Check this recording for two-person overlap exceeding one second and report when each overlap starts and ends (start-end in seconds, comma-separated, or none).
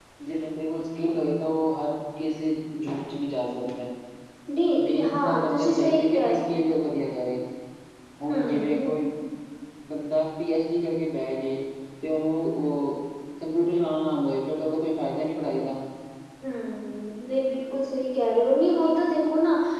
4.8-6.3